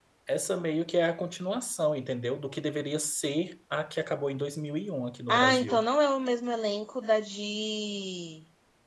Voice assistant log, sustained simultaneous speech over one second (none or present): none